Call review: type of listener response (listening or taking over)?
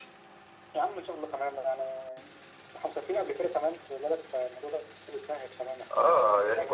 taking over